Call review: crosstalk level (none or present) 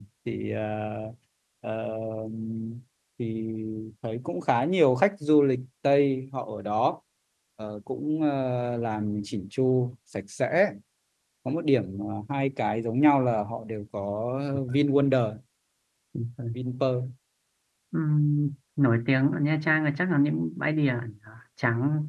none